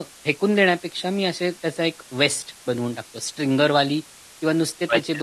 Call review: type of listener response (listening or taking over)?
listening